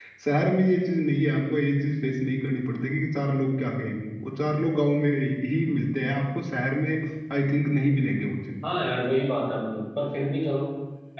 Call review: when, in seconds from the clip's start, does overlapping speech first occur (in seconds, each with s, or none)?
none